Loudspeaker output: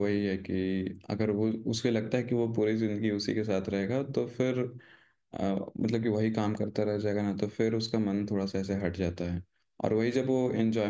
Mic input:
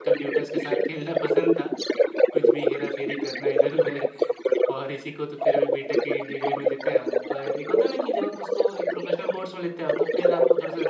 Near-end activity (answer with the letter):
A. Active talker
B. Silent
A